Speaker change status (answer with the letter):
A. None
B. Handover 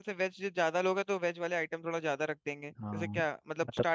B